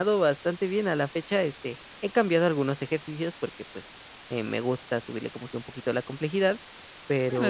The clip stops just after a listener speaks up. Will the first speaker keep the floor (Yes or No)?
No